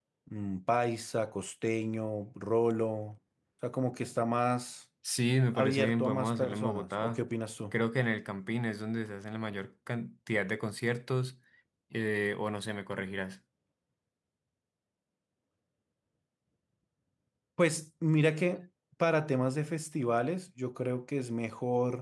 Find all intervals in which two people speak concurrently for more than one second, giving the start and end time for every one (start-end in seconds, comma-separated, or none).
5.5-7.2